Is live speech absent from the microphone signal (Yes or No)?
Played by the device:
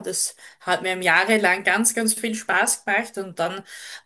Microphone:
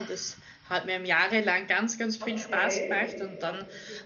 No